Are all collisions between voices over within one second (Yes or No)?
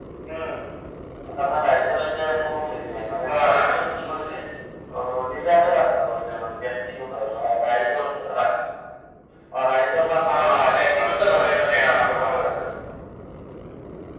No